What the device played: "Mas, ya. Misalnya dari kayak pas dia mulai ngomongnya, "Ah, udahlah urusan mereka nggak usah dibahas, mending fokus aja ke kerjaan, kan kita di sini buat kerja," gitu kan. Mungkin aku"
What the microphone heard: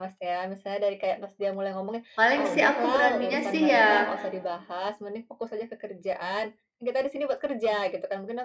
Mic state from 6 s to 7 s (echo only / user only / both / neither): echo only